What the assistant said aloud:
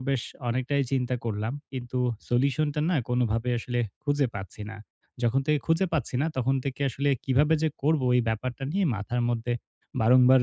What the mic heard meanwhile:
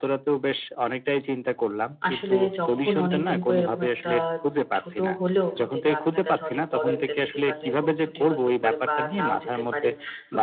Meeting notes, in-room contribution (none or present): present